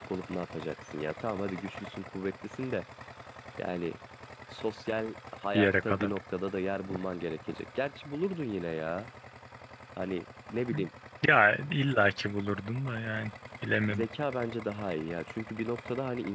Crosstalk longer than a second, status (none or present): none